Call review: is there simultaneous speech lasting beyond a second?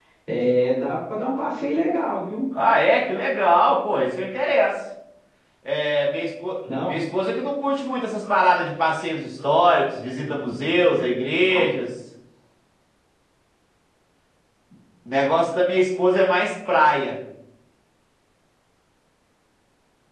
No

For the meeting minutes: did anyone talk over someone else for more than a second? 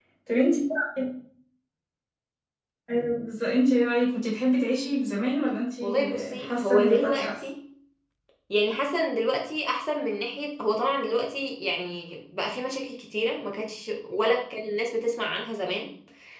Yes, from 5.8 s

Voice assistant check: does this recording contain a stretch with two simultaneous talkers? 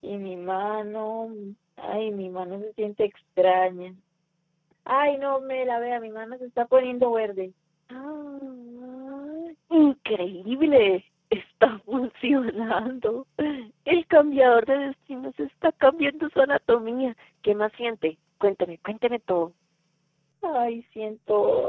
No

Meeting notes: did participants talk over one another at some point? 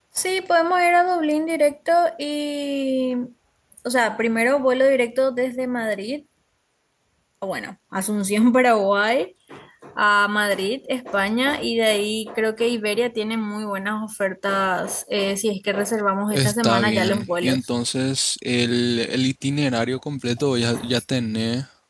Yes, from 16.3 s

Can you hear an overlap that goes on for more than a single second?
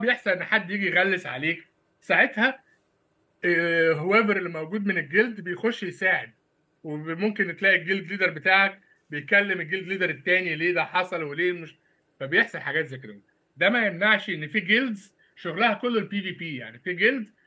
No

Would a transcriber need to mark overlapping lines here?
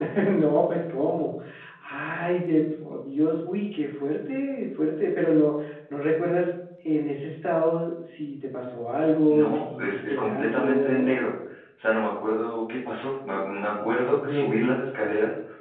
Yes, from 9.3 s

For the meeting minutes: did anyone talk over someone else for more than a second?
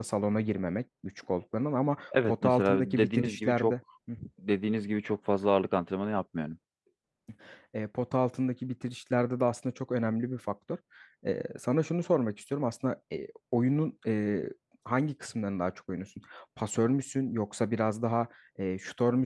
Yes, from 2.1 s

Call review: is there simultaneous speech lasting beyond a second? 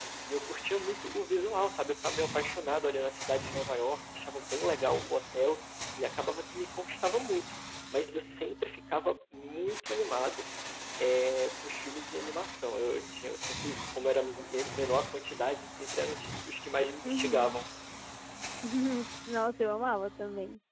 No

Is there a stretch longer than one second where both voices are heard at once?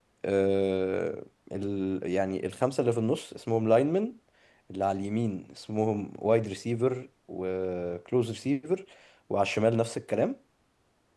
No

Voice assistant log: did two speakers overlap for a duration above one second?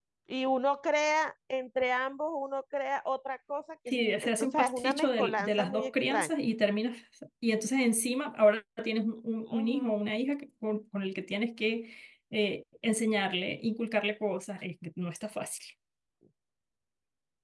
Yes, from 3.9 s

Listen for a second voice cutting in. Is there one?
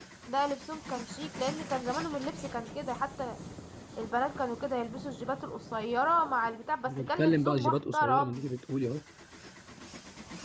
Yes, from 6.9 s

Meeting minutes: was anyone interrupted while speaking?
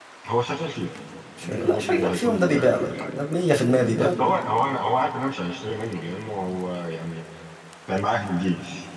Yes, from 1.4 s

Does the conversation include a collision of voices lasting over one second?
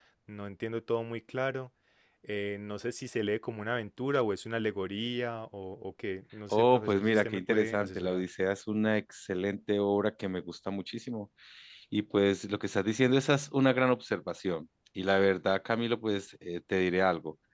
Yes, from 6.5 s

